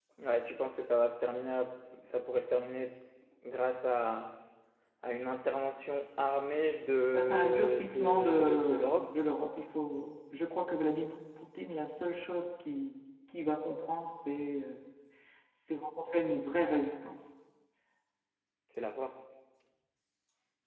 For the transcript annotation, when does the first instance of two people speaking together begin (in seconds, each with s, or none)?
7.1 s